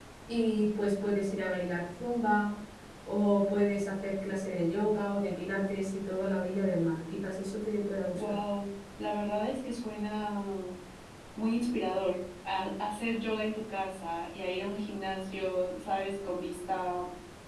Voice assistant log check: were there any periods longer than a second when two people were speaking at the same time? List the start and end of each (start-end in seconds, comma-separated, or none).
none